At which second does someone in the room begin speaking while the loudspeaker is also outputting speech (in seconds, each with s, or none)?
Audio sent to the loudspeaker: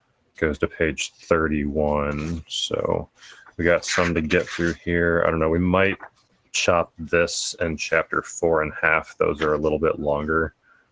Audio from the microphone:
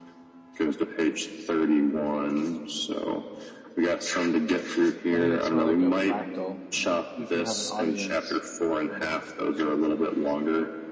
5.2 s